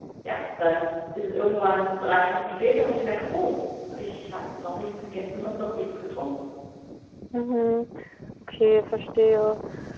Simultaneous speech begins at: none

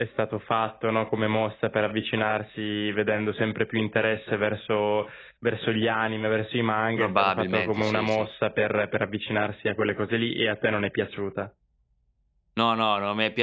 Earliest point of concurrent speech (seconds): 7 s

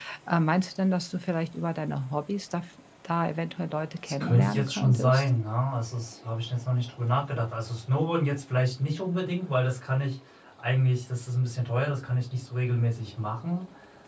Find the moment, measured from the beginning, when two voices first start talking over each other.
4 s

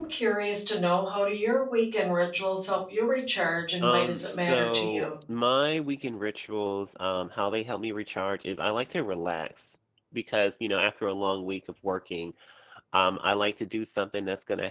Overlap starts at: 4 s

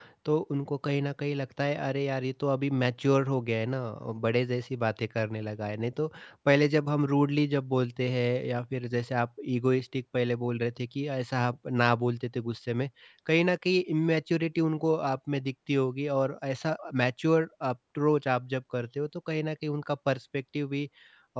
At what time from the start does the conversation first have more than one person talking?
none

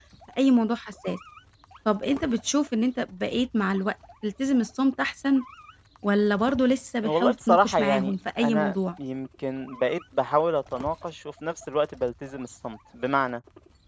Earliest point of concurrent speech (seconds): 7 s

